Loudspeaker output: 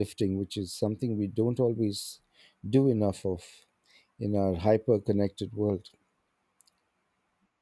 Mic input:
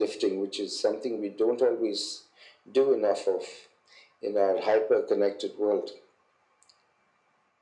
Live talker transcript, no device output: none

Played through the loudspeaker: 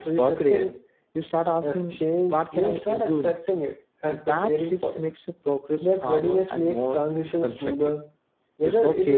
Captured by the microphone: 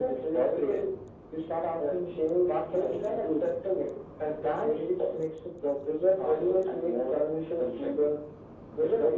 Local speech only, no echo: none

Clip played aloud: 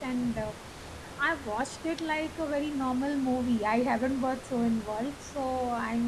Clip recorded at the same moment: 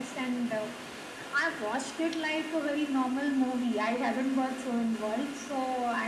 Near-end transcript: none

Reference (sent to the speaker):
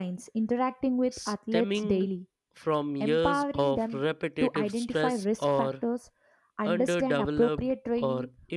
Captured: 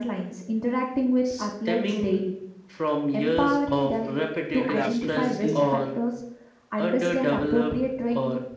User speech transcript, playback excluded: adaptability,

